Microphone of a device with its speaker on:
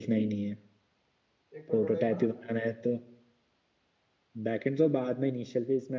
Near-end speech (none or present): present